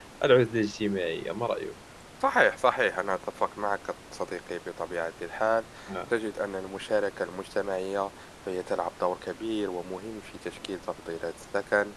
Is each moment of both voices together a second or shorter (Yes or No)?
Yes